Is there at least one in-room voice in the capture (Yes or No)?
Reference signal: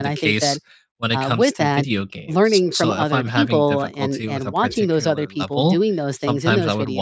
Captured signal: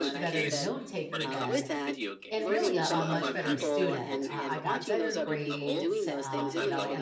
Yes